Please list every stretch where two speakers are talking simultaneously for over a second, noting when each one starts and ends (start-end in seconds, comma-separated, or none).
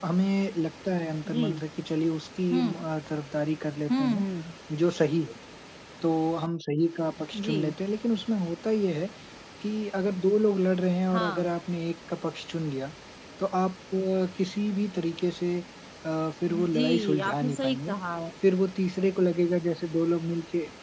16.5-17.9